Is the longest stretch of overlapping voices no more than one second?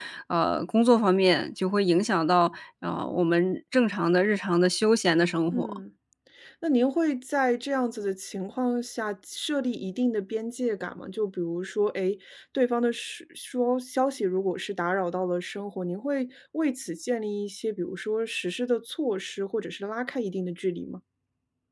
Yes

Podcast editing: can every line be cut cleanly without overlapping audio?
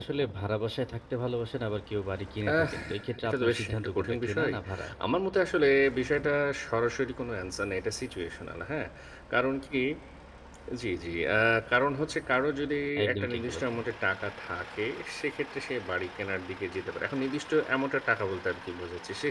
No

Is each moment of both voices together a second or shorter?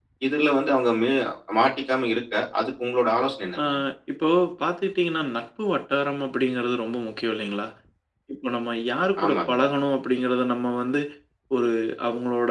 Yes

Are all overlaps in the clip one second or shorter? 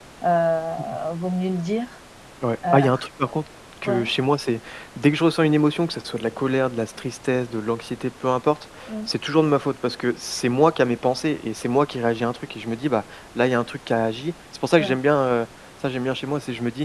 Yes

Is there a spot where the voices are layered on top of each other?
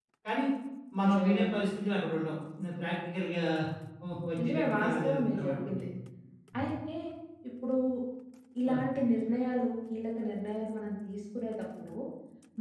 Yes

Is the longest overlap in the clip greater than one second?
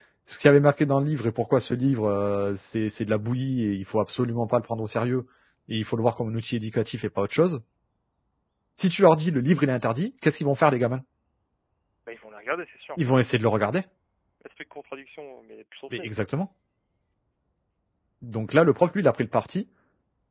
No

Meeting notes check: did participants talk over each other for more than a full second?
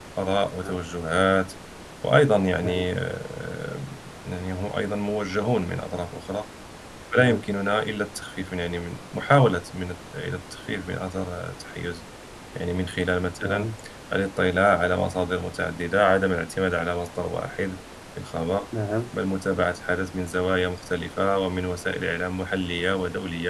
No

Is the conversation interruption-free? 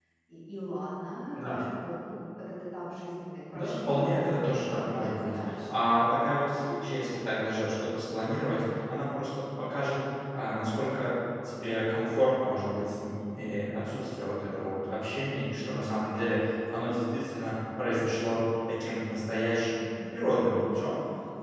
No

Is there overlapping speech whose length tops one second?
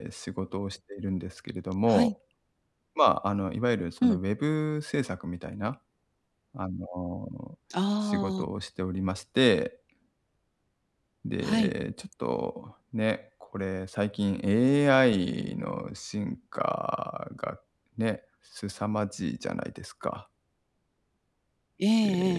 No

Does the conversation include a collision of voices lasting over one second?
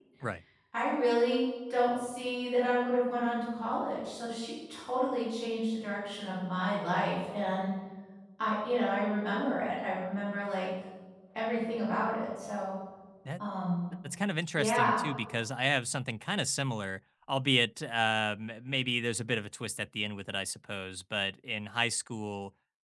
No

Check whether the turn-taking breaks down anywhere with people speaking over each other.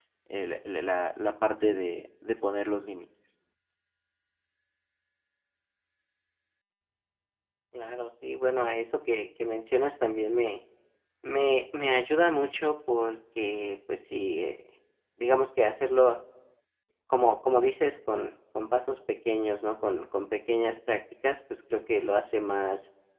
No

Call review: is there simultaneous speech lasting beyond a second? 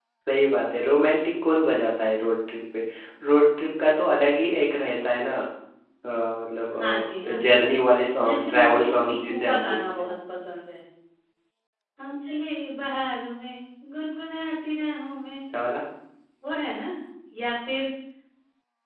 Yes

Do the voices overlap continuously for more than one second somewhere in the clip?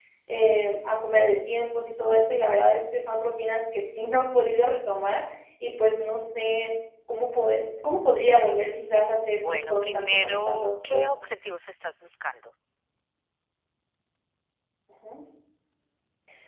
Yes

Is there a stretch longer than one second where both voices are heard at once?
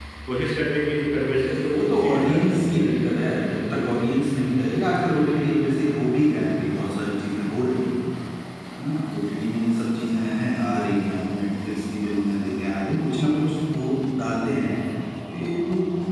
Yes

